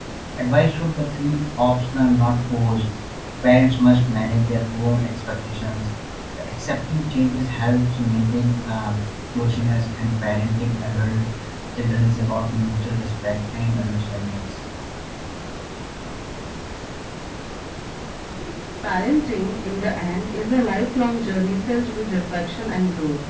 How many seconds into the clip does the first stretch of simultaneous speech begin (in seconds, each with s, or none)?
none